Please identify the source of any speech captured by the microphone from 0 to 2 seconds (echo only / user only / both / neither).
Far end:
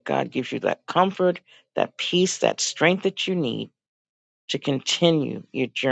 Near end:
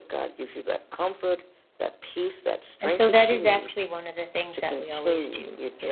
echo only